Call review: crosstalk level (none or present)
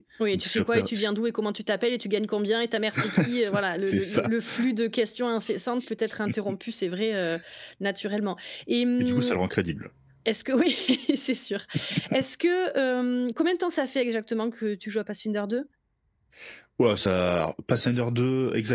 present